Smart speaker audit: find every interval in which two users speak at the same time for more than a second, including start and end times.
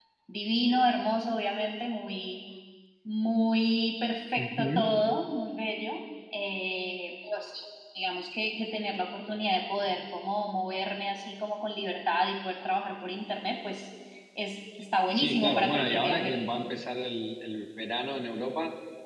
15.1-16.4

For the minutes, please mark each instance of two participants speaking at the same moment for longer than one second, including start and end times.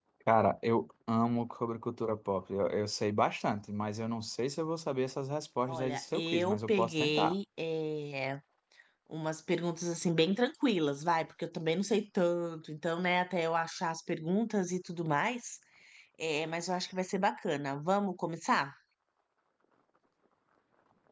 5.7-7.3

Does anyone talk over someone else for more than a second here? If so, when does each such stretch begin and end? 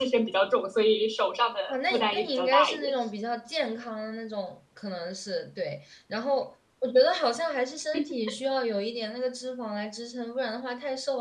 1.7-2.9

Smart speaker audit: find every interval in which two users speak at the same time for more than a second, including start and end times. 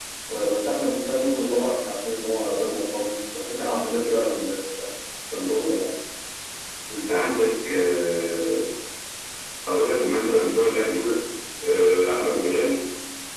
none

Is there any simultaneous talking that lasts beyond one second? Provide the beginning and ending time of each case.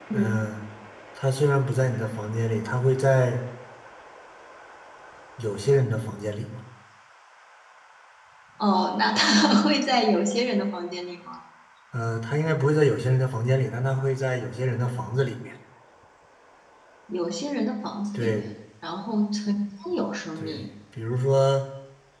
none

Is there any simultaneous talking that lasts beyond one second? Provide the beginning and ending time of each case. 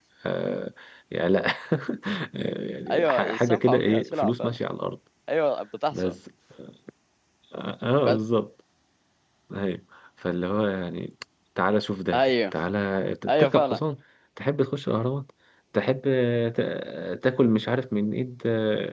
2.9-4.5

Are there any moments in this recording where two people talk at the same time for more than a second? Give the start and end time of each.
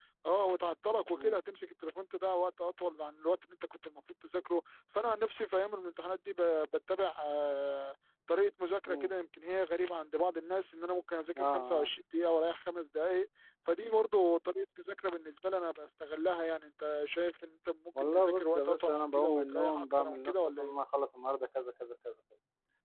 18.1-20.7

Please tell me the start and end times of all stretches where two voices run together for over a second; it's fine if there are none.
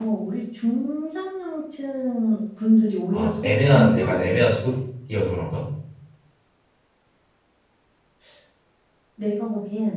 3.1-4.6

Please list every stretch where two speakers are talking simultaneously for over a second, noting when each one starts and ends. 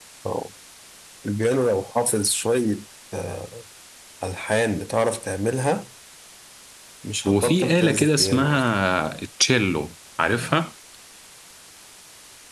7.2-8.7

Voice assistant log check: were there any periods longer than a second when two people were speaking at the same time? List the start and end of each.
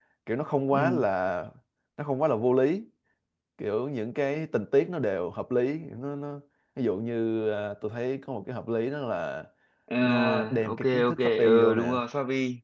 10.0-12.0

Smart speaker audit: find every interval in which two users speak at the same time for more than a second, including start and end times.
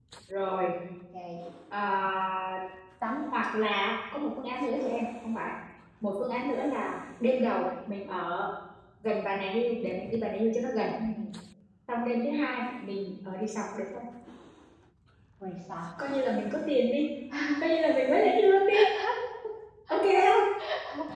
none

